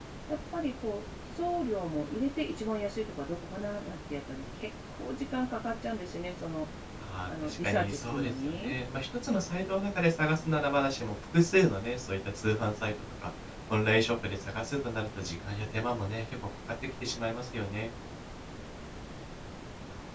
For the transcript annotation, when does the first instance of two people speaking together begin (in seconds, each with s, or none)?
7.3 s